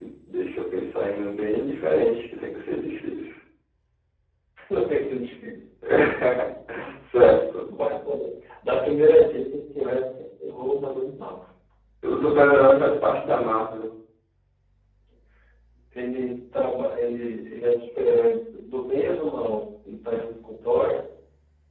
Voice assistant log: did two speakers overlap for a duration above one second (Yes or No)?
No